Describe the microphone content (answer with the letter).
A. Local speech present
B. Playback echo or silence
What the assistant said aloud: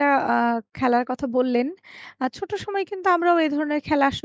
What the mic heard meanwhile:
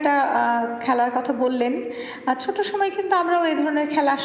B